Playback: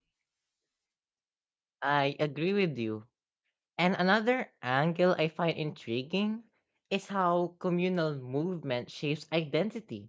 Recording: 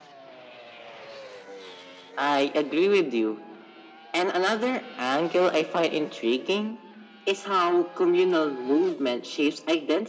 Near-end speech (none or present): none